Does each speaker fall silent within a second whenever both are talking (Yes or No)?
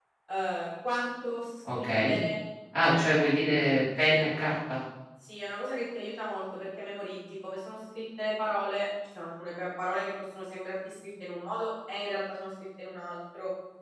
Yes